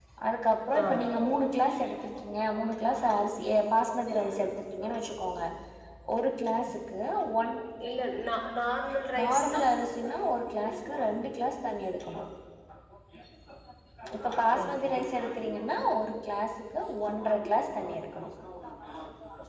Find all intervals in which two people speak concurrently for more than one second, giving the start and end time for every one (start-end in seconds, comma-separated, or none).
none